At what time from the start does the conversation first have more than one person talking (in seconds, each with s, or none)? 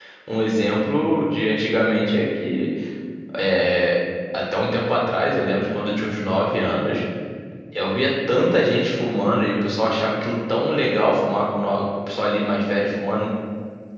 none